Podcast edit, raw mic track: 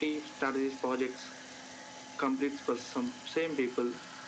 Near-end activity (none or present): none